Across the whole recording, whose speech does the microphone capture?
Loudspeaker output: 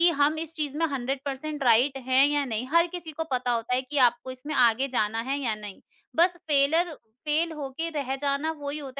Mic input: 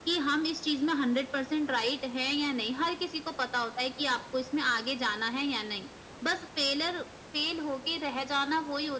echo only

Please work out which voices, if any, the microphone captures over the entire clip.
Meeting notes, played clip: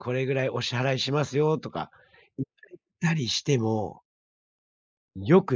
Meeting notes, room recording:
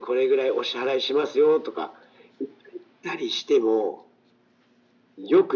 echo only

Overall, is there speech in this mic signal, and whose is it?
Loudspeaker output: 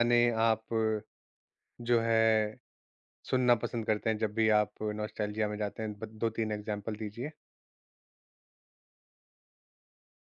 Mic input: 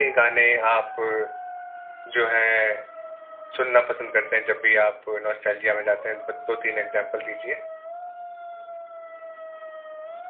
echo only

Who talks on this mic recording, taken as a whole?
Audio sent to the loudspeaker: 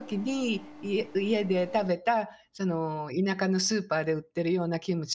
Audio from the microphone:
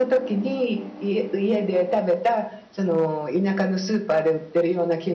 echo only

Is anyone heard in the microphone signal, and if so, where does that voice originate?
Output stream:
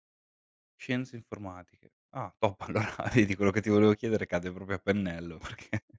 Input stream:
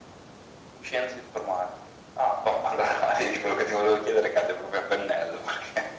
echo only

